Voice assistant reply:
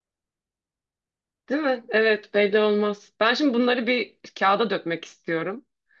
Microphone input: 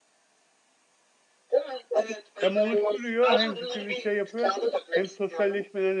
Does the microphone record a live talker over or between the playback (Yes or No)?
Yes